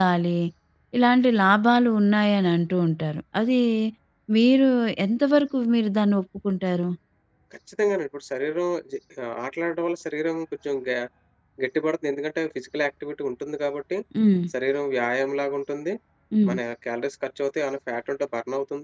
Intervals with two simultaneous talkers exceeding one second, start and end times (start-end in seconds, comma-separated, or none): none